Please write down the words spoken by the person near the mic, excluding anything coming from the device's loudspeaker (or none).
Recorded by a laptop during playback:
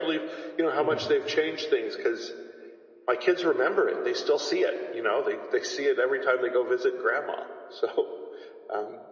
Yeah.